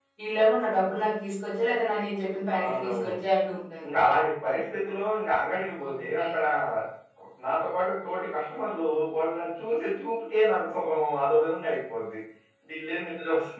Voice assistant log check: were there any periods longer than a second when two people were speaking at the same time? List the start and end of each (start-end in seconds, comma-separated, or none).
none